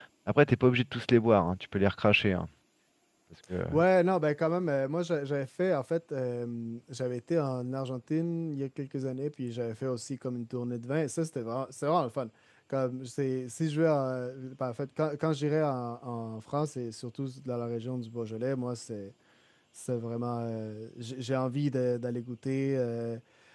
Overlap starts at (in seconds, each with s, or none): none